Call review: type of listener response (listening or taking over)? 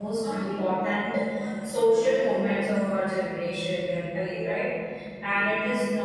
listening